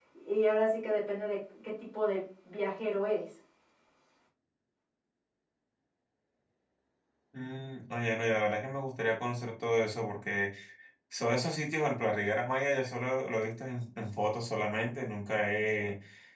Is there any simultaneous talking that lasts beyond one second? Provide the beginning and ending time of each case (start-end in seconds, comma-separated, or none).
none